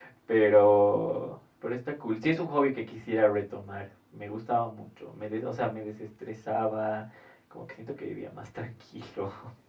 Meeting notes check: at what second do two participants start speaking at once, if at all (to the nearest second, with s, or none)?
none